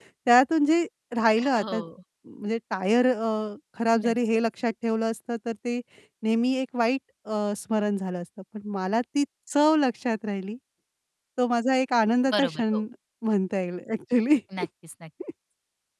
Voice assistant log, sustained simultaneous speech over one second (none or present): none